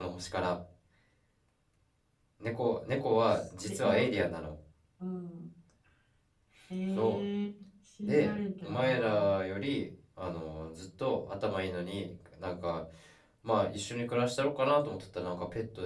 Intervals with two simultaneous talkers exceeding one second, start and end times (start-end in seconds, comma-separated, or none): 8.0-9.2